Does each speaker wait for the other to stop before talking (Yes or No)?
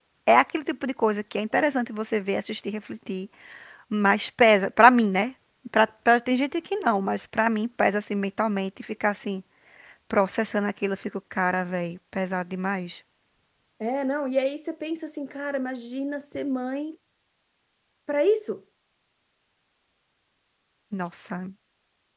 Yes